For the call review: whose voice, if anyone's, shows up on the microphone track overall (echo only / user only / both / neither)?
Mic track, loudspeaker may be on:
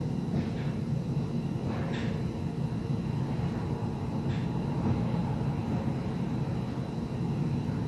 neither